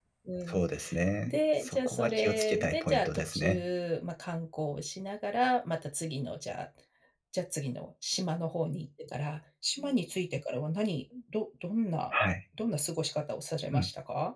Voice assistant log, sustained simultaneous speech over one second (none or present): present